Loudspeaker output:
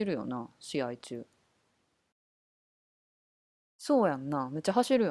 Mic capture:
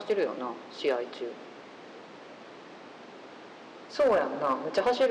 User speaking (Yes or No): No